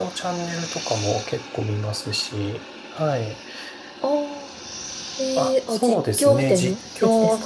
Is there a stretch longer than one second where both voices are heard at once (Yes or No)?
Yes